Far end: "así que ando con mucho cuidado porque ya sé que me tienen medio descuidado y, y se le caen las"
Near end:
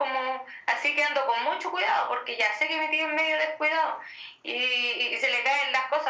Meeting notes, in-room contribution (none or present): none